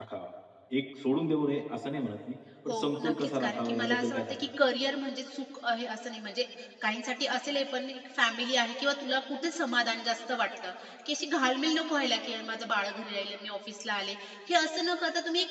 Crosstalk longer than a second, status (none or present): present